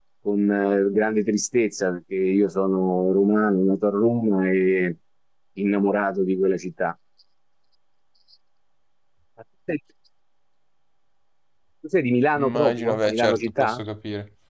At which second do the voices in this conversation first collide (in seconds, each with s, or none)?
12.4 s